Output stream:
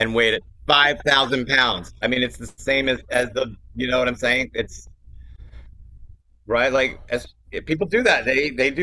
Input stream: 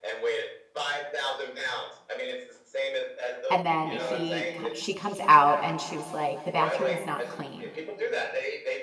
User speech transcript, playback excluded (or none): And then he she comes out and she was like, "The bathroom is not clean.